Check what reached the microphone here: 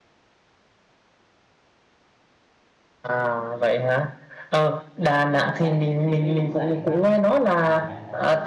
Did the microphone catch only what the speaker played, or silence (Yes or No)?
No